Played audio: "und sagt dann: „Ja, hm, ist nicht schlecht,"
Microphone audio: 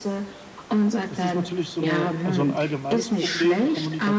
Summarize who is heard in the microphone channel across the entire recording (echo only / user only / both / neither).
both